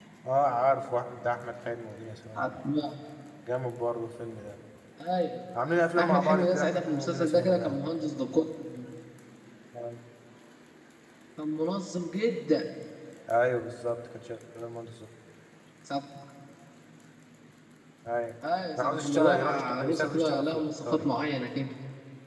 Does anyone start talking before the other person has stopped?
Yes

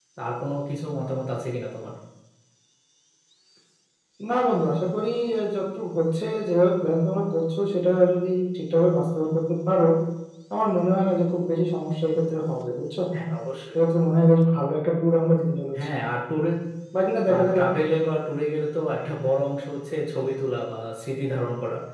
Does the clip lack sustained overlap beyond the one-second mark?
Yes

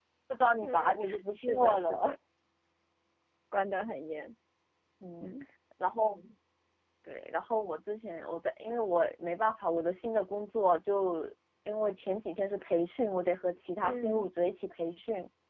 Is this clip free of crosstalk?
No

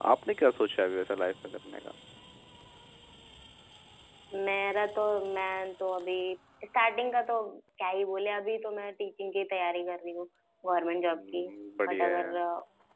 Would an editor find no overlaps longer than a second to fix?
Yes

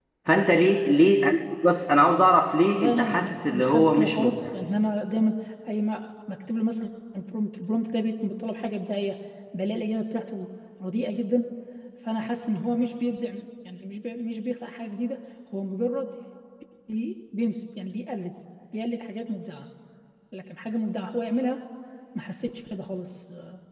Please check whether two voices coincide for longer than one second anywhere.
Yes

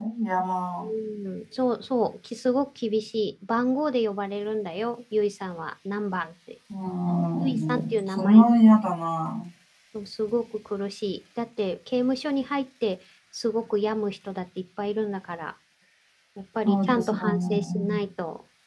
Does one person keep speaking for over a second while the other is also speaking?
Yes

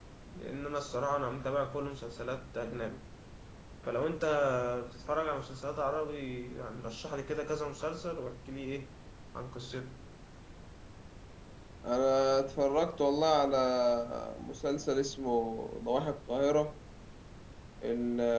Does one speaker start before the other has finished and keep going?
No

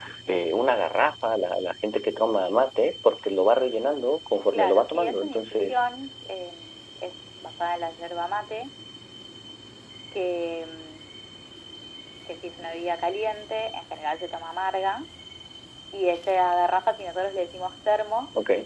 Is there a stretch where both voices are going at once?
Yes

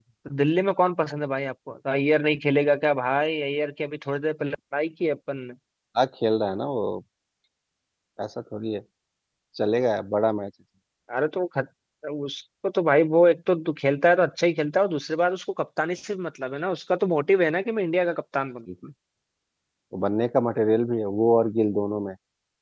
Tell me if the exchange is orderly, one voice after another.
Yes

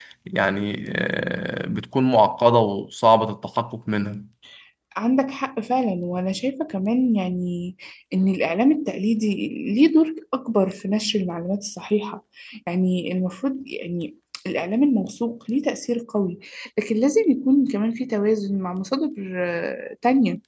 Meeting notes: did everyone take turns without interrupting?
Yes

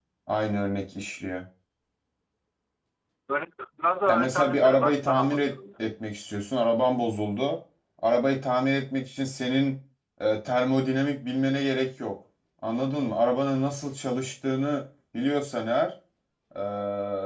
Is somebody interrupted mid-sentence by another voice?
Yes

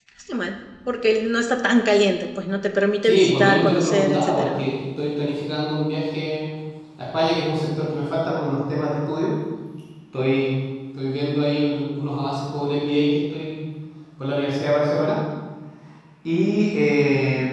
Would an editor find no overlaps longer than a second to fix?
No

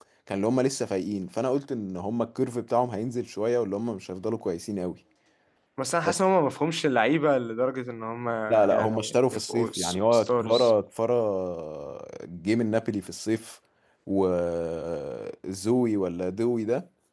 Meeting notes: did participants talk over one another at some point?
Yes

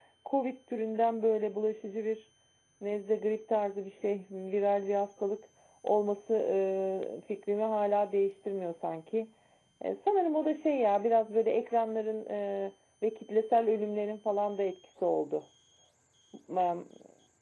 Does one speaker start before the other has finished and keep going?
No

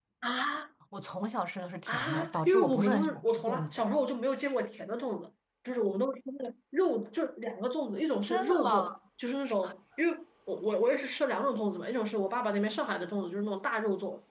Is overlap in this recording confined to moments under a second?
No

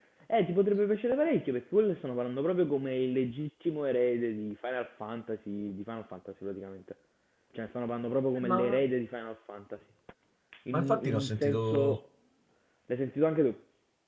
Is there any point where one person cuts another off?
Yes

